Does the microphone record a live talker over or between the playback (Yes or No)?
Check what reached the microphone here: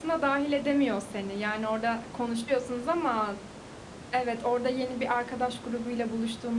No